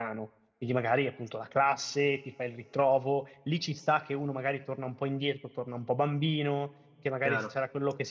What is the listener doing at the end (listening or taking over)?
listening